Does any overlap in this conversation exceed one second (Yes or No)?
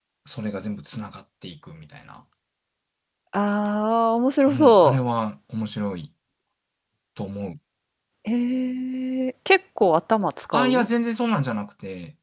No